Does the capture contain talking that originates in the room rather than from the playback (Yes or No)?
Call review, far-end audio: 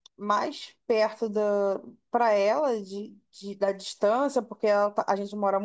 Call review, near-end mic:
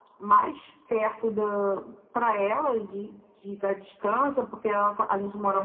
No